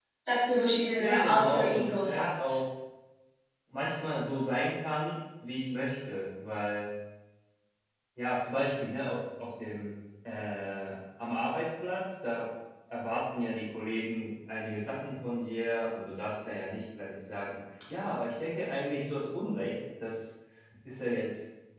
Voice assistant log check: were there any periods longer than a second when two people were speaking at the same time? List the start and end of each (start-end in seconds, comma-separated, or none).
1.0-2.6